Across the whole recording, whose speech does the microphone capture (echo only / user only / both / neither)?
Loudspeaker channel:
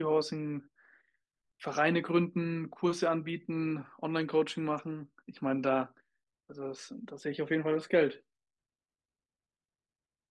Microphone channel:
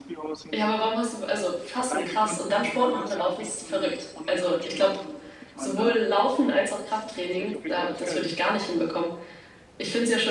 both